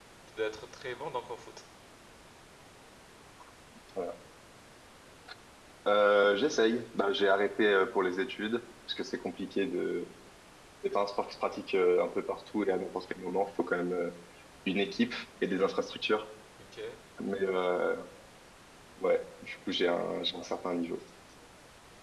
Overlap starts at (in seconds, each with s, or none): none